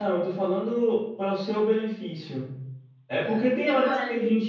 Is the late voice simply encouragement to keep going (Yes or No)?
Yes